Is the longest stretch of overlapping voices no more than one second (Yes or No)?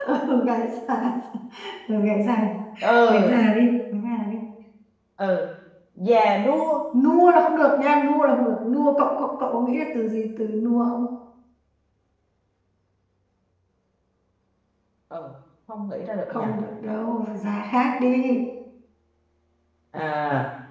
Yes